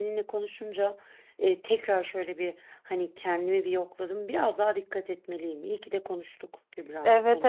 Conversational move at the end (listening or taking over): taking over